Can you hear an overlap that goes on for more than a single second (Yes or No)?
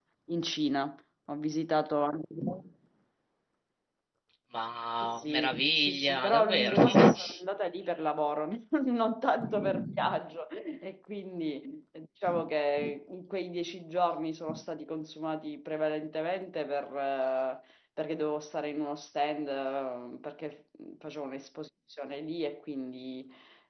Yes